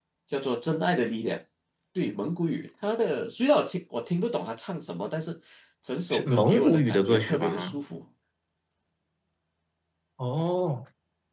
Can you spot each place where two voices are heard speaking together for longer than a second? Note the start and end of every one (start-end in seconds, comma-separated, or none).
6.1-7.8